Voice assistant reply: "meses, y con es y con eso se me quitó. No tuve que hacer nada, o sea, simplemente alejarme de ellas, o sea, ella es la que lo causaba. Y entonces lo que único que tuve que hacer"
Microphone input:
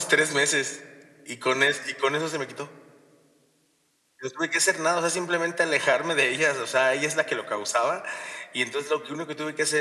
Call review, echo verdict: present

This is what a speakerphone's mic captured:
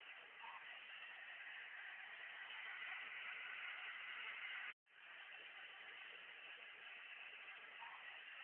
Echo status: none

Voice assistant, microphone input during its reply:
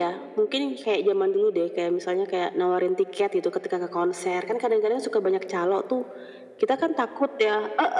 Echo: present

